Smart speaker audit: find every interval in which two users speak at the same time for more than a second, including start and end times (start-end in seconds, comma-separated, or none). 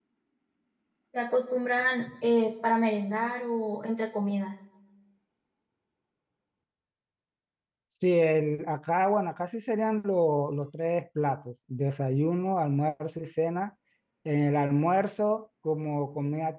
none